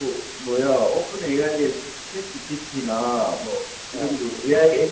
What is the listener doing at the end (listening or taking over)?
listening